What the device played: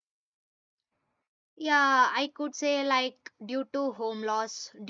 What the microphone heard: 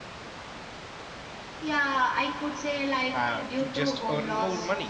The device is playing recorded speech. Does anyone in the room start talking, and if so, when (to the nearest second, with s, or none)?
3 s